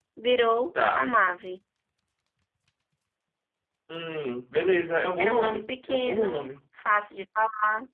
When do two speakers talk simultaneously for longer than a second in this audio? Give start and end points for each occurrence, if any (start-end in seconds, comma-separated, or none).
5.2-6.5